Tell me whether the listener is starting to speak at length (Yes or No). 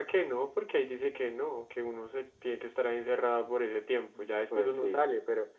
No